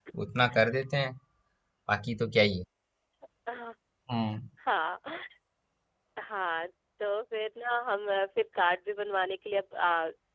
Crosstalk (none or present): none